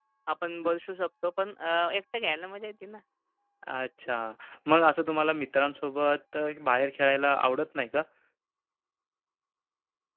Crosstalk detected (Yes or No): No